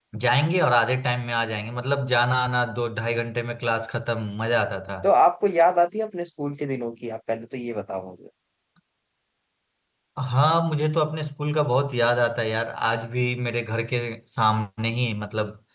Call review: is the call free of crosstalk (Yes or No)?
Yes